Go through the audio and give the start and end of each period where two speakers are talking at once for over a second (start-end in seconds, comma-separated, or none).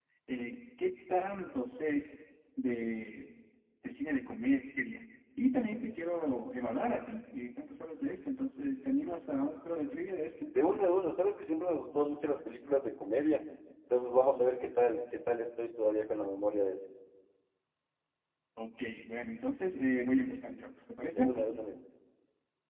none